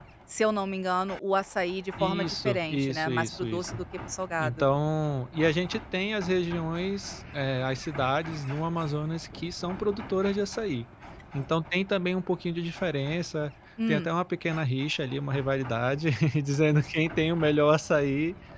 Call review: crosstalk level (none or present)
present